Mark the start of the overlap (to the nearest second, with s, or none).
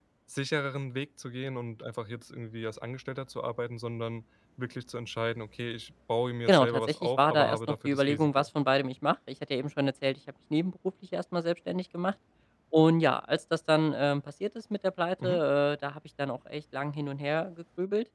6 s